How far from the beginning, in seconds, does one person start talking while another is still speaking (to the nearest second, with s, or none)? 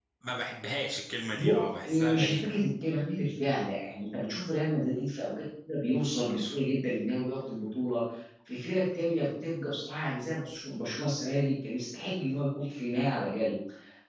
1 s